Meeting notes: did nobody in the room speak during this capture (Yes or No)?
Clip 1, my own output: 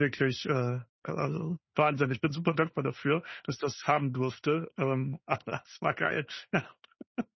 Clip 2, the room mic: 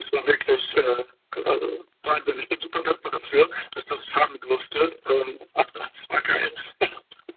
Yes